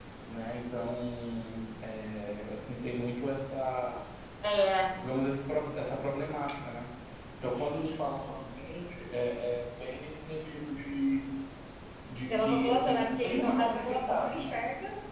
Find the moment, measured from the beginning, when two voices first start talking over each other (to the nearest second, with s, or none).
12 s